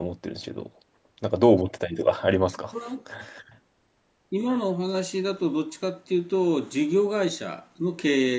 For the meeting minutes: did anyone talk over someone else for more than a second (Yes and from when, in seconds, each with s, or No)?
No